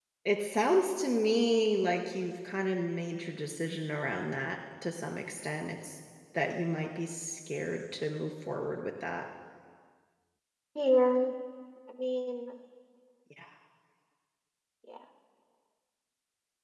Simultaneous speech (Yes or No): No